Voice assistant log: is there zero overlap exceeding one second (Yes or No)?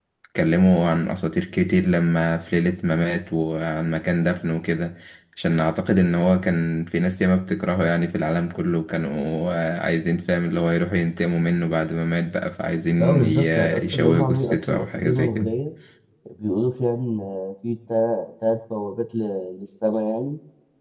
No